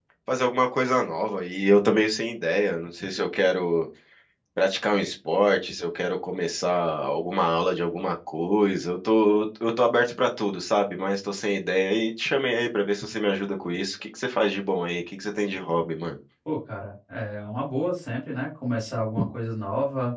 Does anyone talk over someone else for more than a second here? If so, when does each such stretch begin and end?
none

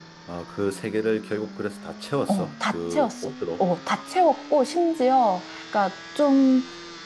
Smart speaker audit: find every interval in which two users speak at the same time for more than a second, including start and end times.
2.3-3.6

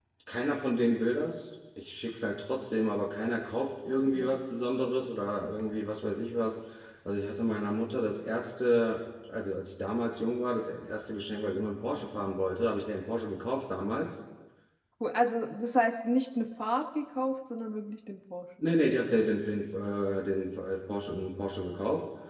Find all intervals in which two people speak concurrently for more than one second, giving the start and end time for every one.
none

